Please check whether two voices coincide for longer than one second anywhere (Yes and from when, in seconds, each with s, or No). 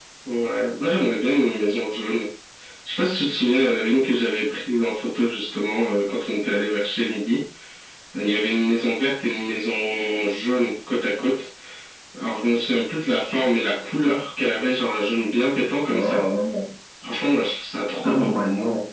No